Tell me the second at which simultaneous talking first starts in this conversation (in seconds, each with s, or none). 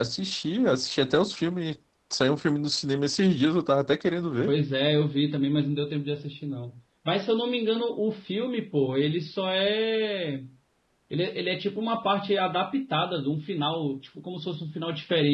none